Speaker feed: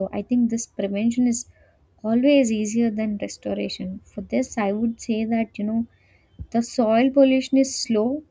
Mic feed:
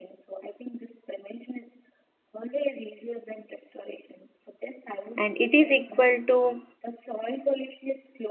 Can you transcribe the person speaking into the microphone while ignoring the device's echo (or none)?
and it is equal to